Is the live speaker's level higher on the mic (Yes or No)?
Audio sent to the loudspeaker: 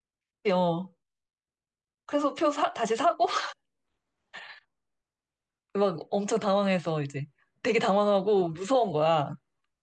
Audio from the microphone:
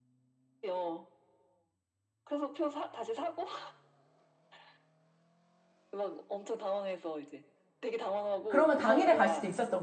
Yes